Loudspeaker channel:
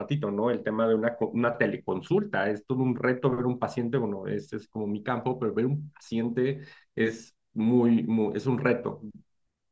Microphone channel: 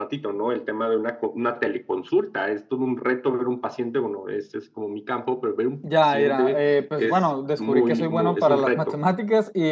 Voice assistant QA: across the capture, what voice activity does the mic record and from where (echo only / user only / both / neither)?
both